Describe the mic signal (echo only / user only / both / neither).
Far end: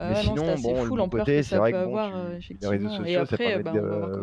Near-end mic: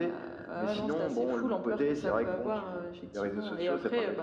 echo only